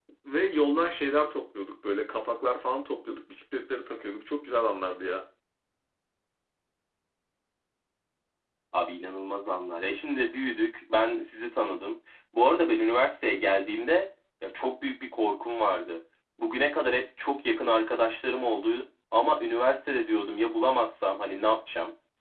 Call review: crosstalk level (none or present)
none